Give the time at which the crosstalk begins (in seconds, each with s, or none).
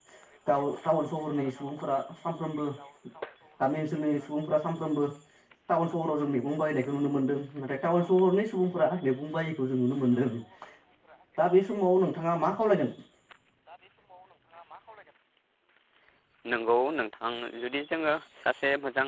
none